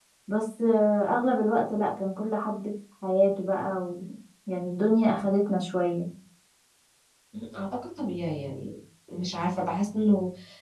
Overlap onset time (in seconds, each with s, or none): none